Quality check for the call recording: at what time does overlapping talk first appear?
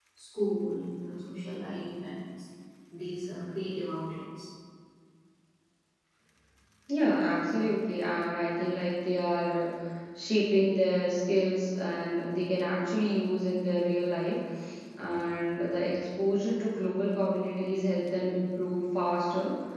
none

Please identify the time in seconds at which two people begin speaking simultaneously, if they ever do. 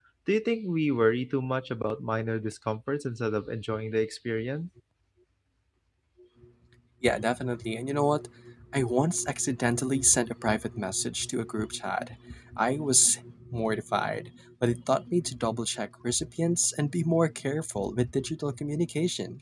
none

